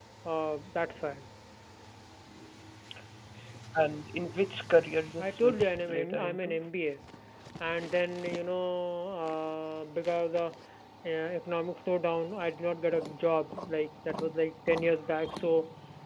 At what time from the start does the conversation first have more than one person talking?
5.2 s

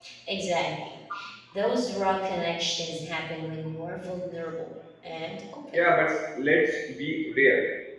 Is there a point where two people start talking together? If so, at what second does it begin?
none

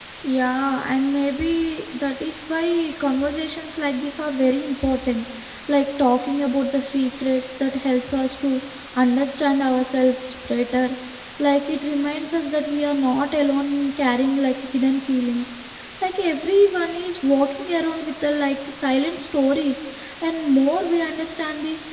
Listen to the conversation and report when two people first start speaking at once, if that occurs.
none

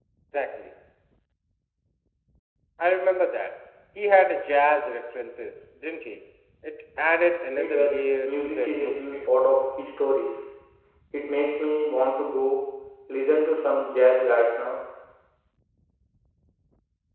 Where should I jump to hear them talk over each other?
7.6 s

